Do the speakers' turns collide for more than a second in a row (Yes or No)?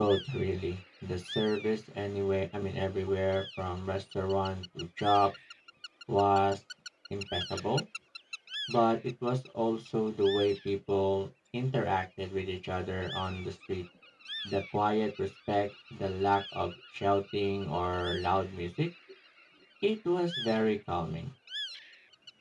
No